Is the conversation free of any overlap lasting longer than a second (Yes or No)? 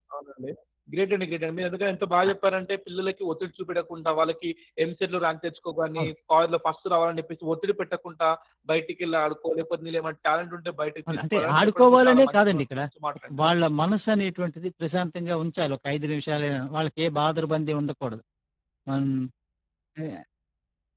No